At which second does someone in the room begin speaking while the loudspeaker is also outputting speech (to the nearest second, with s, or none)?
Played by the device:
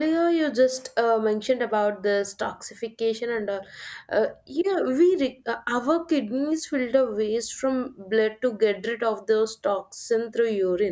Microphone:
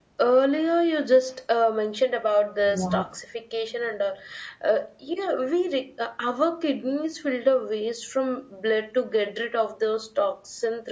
3 s